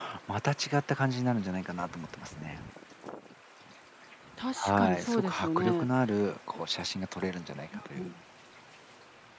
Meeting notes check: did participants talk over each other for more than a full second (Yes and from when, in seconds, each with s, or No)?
Yes, from 4.6 s